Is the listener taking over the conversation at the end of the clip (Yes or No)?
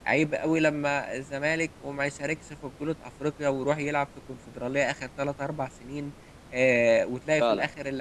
No